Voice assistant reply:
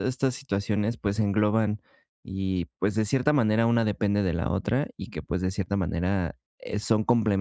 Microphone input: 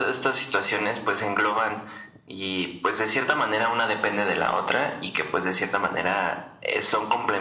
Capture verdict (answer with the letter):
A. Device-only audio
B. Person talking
A